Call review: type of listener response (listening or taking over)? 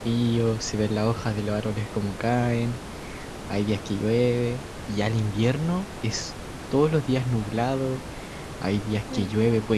listening